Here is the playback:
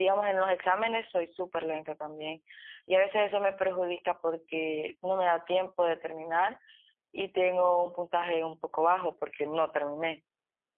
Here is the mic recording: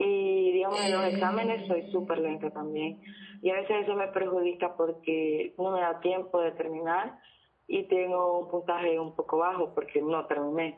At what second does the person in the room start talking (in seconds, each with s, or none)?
0.7 s